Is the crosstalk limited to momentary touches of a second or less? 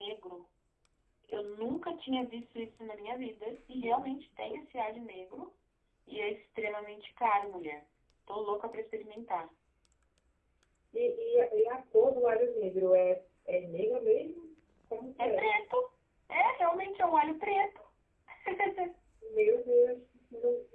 Yes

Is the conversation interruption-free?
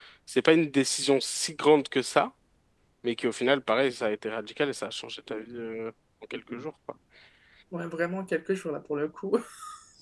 Yes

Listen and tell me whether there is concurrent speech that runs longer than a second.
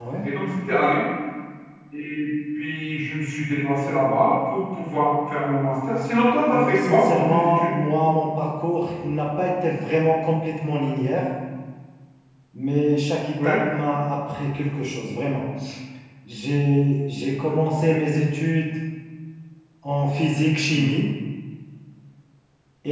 Yes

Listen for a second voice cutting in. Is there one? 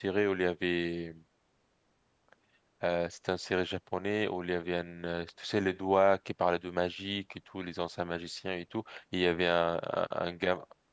No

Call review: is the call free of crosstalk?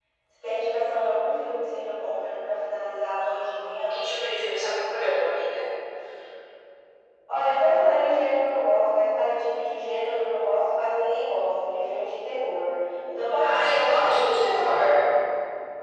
No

